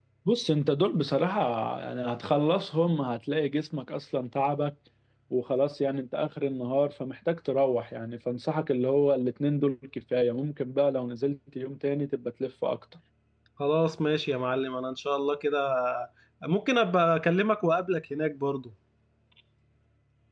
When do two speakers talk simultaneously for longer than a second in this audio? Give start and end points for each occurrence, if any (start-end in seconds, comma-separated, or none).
none